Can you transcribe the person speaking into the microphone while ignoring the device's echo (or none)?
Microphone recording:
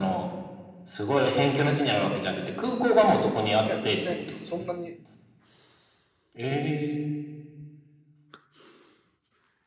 いや、全然、そんなに